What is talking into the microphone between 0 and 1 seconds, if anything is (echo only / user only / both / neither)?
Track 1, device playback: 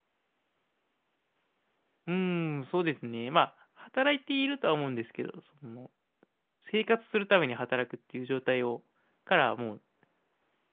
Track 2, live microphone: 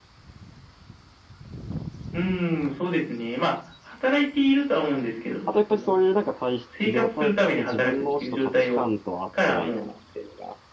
neither